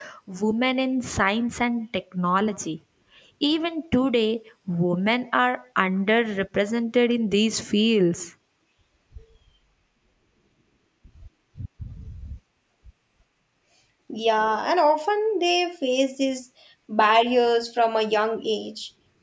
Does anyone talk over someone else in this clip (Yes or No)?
No